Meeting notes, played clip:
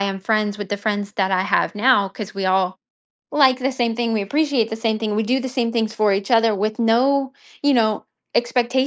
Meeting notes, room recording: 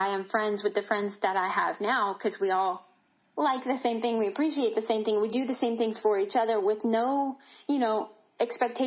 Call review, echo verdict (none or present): present